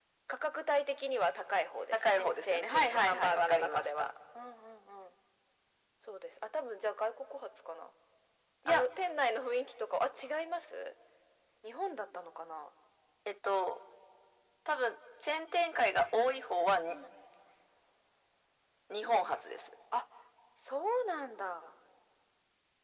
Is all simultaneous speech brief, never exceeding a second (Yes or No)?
No